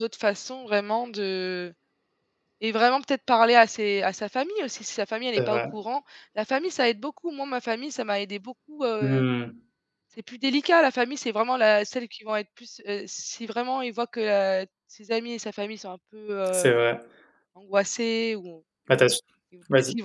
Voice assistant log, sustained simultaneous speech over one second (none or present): none